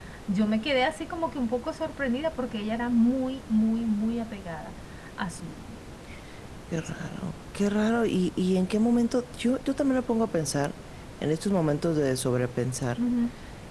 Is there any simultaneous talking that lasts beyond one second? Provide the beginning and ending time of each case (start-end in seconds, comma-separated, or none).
none